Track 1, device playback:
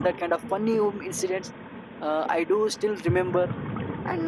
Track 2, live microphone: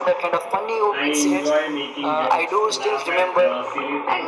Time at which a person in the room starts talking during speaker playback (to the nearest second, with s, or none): 1 s